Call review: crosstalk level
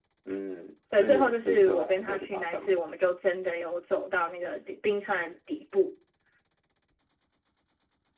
present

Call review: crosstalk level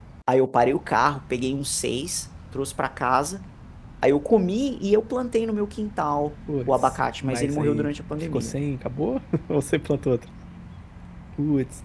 present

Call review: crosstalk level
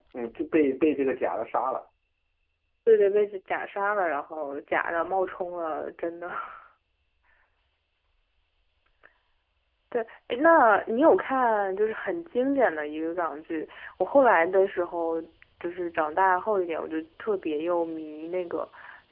none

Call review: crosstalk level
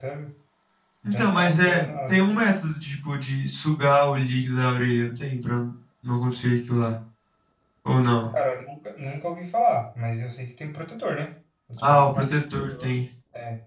present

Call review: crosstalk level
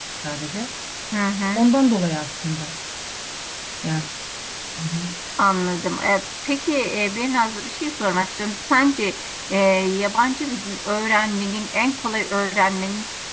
none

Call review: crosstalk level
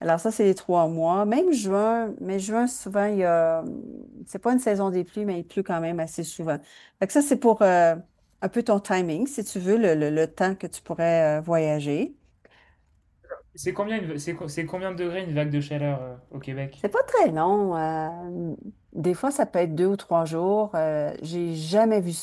none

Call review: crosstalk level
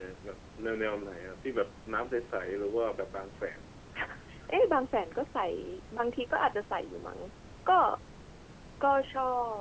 none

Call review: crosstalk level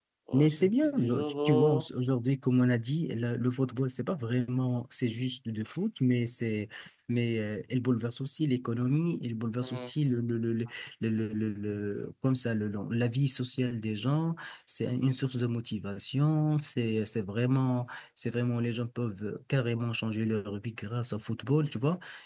present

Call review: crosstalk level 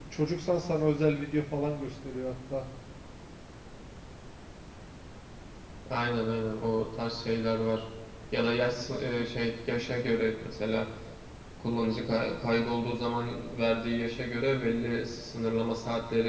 none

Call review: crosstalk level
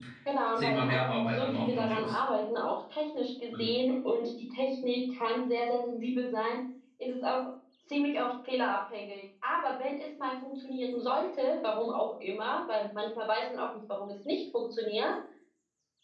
present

